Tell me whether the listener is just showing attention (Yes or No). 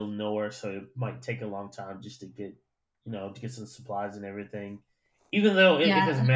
Yes